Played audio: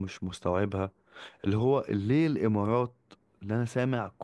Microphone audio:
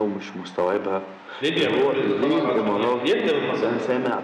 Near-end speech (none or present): present